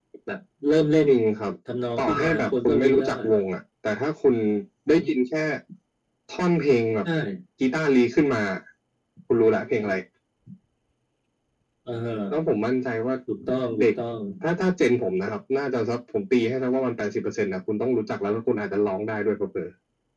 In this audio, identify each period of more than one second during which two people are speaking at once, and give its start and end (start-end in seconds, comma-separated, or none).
2.0-3.2